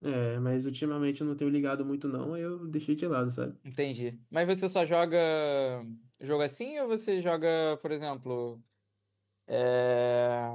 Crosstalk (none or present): none